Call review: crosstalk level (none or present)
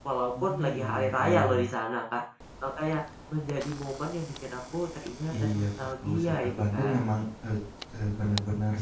present